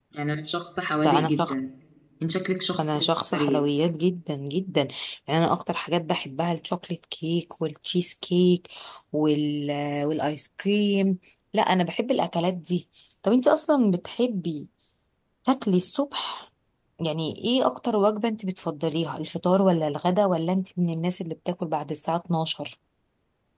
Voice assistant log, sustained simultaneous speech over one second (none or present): none